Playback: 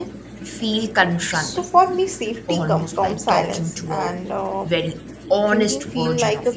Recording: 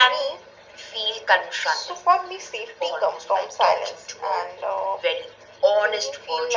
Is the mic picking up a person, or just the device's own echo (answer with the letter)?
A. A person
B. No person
B